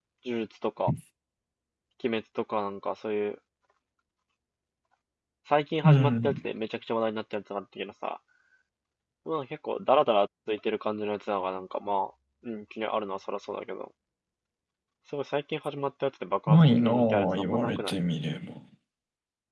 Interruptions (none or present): present